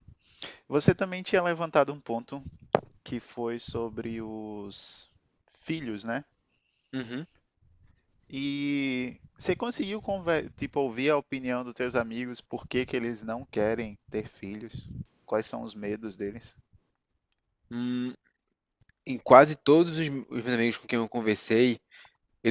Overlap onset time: none

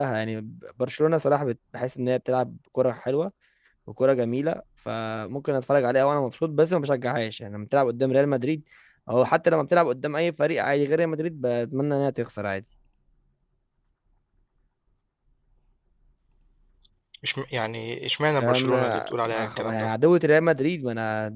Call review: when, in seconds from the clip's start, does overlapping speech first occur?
18 s

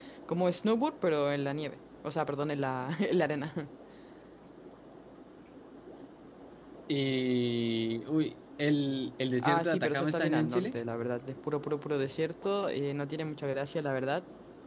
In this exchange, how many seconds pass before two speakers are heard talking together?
9 s

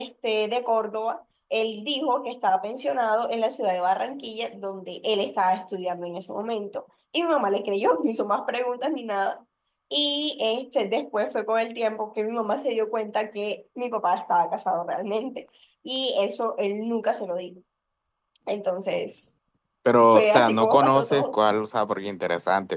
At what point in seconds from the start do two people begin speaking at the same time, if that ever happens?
20 s

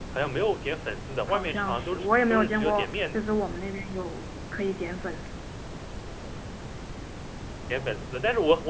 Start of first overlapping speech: 1 s

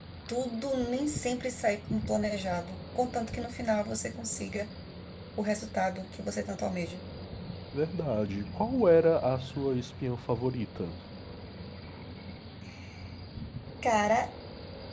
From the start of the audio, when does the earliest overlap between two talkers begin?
none

